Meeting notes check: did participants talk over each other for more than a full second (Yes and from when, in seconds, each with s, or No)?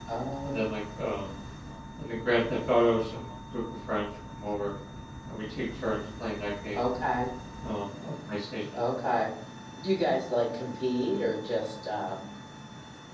No